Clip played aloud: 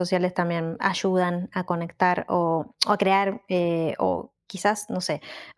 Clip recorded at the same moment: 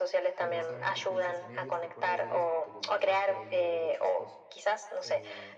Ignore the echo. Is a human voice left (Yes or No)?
Yes